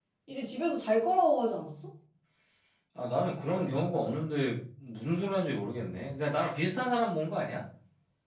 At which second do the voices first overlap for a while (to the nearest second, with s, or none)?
none